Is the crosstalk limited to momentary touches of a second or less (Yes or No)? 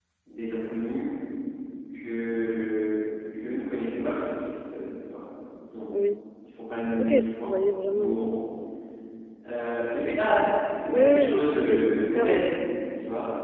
No